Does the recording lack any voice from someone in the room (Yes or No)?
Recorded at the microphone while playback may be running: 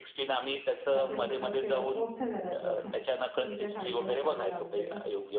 No